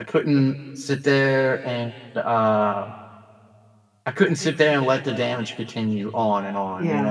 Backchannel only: No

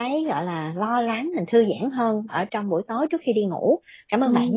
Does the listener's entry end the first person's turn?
Yes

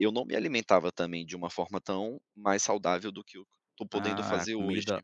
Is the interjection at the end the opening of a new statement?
Yes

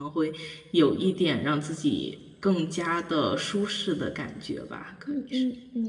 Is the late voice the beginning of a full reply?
Yes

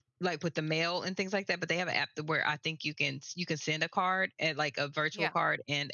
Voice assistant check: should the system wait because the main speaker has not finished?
Yes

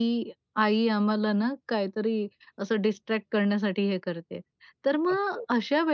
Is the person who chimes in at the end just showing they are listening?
Yes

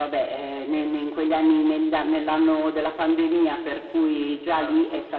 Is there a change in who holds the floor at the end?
No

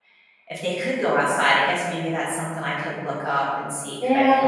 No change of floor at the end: No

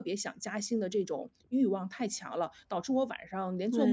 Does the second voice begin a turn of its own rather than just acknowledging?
No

